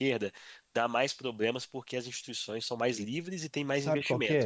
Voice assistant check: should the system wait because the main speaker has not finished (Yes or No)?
No